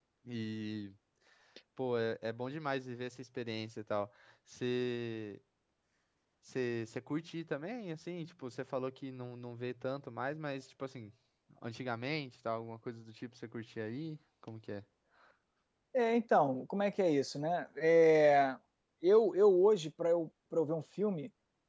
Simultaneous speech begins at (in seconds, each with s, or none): none